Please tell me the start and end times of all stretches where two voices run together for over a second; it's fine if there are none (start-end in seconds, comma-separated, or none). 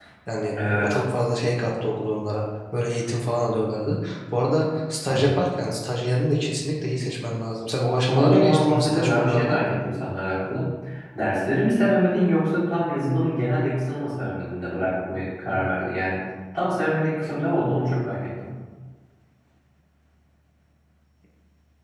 8.1-9.6